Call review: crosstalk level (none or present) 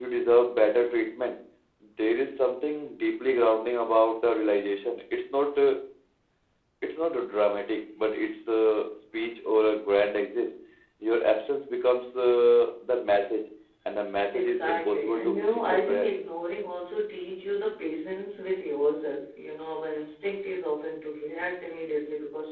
present